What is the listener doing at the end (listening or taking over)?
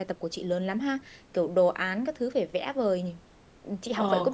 taking over